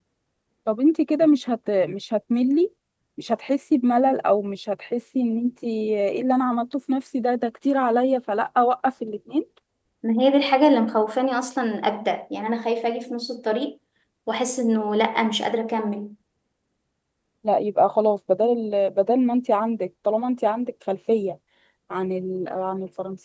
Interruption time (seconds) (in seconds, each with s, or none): none